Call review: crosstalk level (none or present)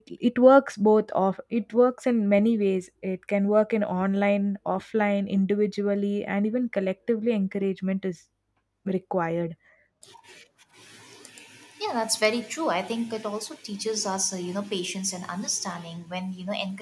none